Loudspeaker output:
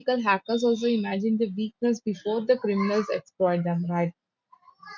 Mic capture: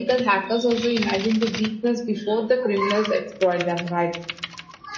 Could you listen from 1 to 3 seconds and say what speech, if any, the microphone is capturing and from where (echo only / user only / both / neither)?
echo only